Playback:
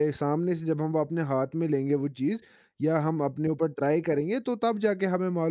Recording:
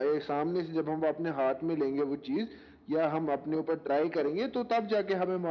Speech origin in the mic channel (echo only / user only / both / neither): echo only